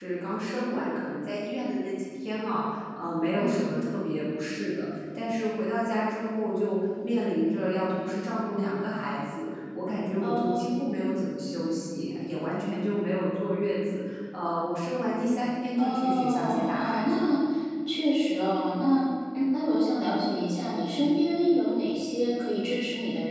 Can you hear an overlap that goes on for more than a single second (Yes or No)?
Yes